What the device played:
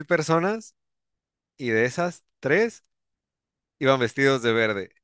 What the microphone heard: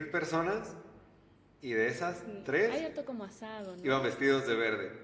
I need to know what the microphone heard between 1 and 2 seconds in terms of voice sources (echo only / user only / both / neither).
echo only